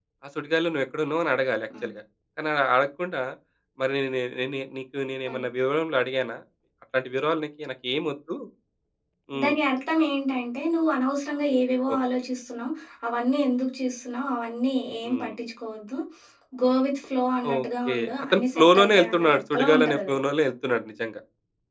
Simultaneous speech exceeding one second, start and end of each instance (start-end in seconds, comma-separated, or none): 17.5-20.1